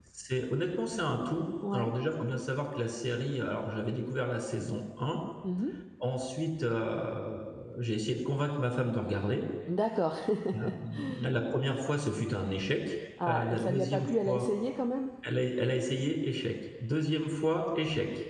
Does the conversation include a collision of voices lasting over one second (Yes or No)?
Yes